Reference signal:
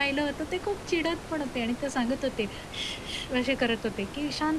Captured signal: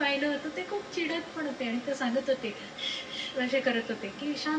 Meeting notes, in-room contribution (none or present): none